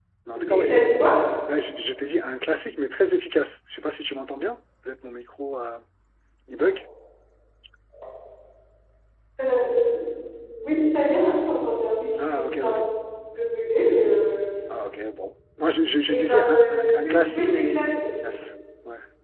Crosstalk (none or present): present